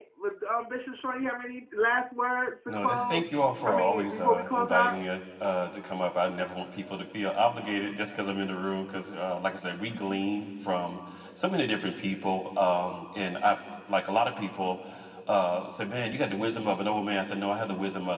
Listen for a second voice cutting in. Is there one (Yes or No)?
Yes